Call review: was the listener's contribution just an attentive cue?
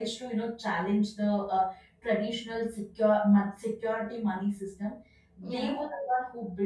Yes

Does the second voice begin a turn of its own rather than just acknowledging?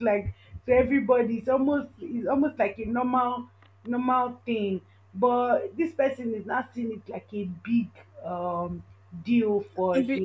Yes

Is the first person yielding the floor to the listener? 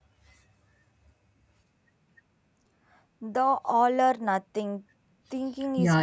Yes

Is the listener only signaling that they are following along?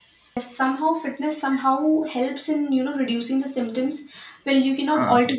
Yes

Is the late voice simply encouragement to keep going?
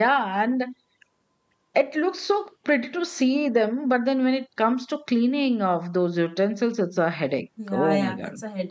No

